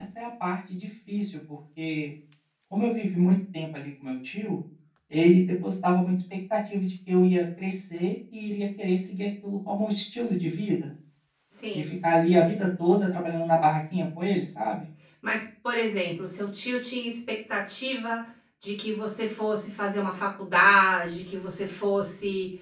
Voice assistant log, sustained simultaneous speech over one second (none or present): none